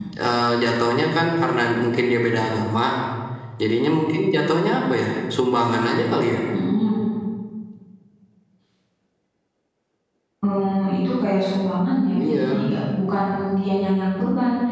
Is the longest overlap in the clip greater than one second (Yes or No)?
No